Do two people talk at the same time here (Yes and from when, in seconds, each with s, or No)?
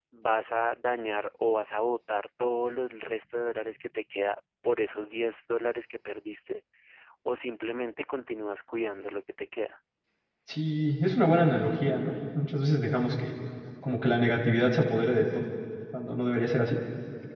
No